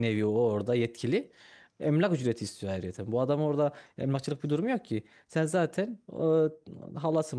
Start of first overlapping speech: none

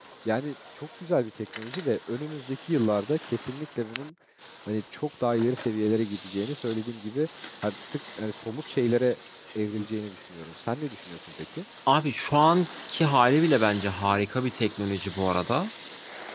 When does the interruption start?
none

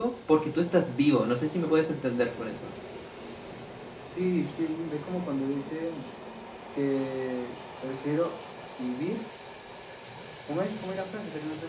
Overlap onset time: none

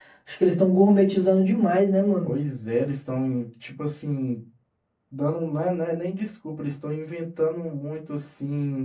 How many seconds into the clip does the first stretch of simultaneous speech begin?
none

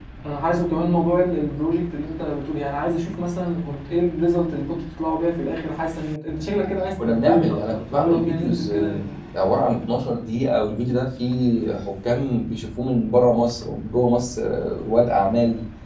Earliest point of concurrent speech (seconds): 7.0 s

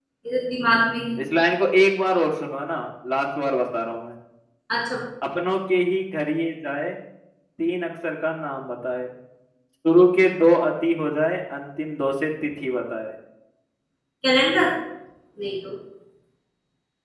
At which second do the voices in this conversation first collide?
none

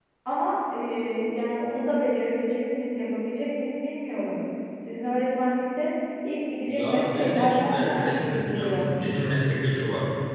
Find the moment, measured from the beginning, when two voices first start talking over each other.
6.6 s

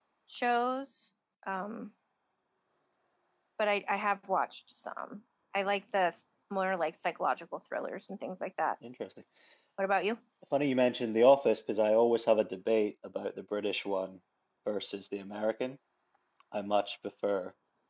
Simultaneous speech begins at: none

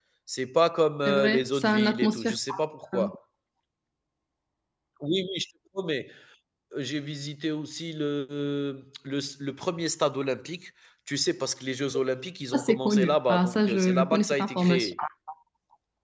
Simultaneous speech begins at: 1.1 s

